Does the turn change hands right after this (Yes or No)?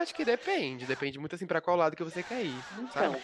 No